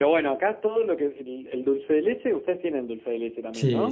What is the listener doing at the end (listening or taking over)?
taking over